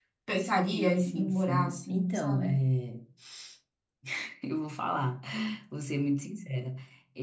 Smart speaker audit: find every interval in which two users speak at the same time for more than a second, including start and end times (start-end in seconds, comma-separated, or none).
0.7-2.5